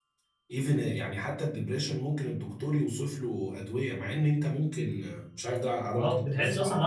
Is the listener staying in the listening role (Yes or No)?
No